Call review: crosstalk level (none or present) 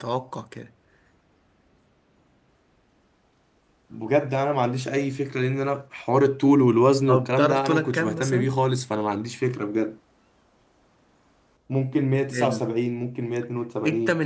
present